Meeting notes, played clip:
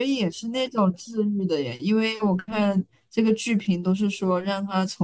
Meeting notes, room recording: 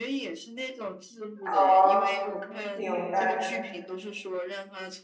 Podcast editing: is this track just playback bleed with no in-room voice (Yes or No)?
No